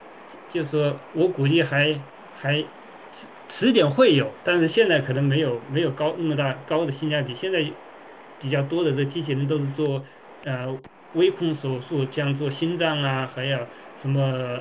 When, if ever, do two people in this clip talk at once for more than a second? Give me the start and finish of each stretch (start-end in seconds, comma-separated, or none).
none